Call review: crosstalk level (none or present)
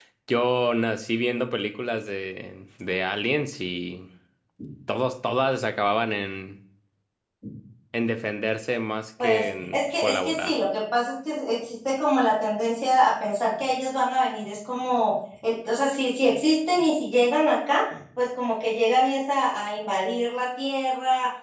present